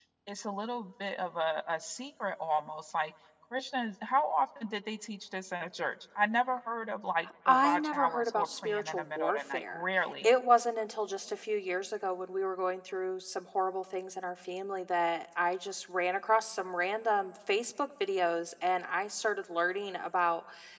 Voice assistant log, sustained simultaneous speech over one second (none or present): present